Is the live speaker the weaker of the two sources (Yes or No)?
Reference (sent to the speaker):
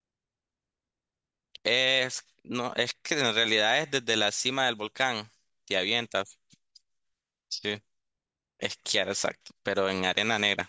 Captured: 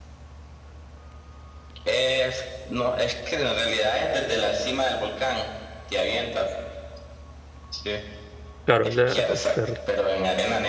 No